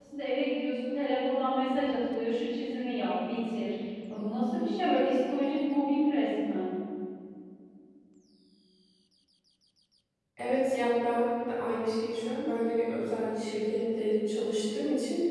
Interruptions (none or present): none